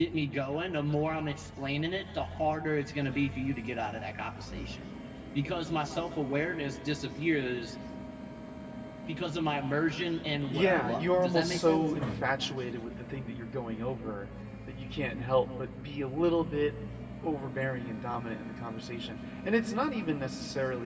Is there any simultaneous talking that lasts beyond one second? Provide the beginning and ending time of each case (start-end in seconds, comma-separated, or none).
10.5-11.9